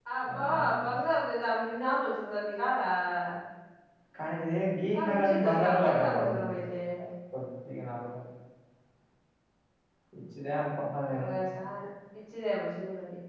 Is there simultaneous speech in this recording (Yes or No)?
Yes